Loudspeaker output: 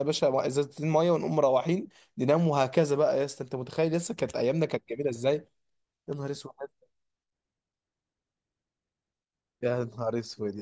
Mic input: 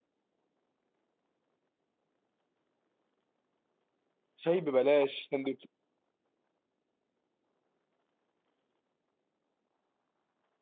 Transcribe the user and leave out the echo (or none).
شاي ببلاش سندوتش